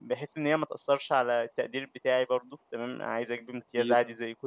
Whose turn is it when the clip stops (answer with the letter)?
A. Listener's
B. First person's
B